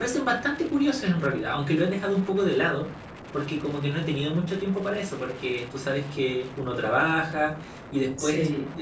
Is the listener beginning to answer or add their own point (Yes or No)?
No